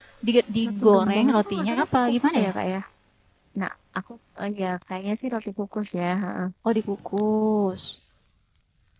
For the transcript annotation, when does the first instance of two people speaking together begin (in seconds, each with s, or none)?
0.7 s